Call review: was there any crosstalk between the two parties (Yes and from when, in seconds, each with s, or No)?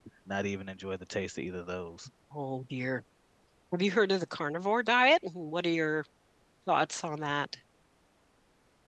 No